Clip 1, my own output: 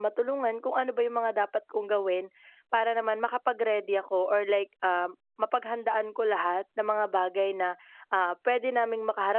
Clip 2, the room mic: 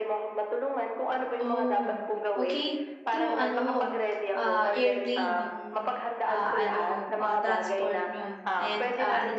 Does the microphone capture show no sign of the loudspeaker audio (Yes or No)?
No